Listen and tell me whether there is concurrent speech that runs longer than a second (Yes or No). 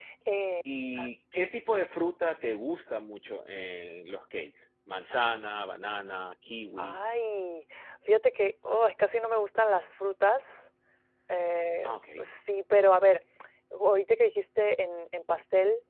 No